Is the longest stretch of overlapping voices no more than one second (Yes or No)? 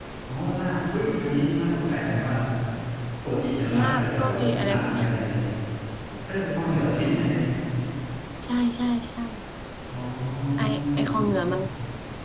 No